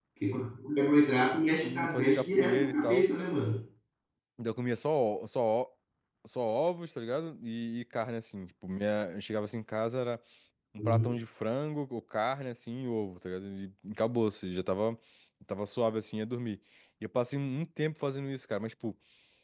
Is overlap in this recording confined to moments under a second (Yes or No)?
No